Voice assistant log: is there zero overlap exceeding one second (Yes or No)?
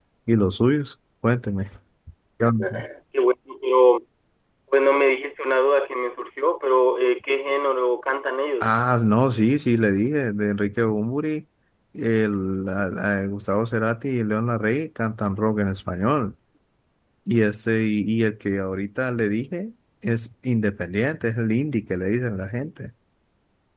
Yes